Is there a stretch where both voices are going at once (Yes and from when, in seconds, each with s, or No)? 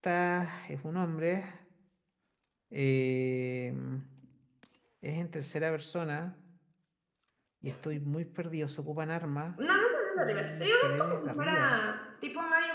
Yes, from 10.2 s